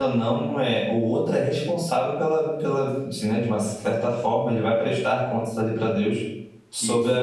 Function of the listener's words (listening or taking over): listening